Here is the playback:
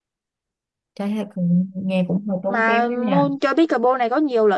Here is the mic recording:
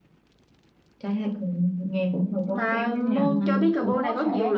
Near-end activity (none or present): present